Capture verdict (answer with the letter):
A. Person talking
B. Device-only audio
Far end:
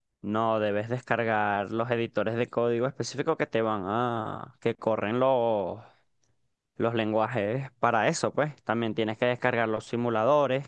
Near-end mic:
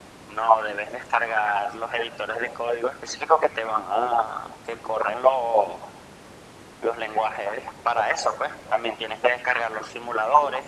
B